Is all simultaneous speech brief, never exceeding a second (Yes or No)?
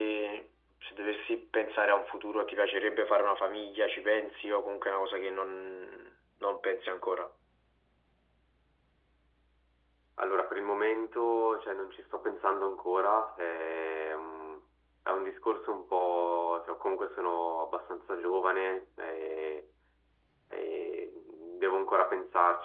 Yes